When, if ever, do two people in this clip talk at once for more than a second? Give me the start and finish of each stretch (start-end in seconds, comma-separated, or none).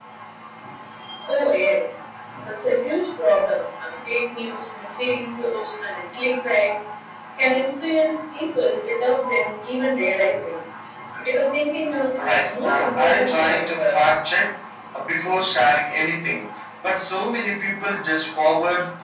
12.2-14.0